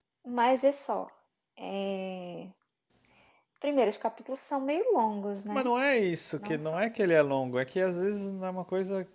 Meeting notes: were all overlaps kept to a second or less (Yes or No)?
Yes